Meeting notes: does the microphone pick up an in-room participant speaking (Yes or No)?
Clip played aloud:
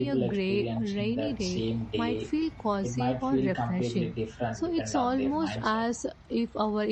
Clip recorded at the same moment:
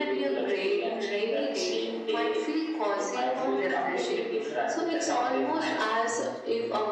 Yes